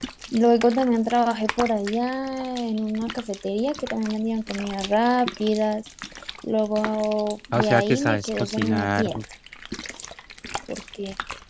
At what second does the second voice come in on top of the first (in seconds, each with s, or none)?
7.5 s